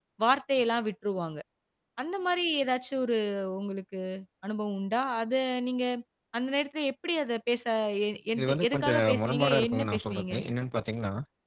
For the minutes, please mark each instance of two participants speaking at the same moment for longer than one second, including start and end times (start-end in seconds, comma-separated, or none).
8.4-10.3